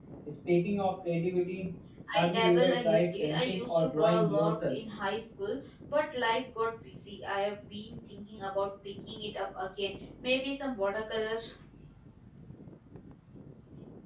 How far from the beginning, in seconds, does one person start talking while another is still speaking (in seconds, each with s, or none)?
2.1 s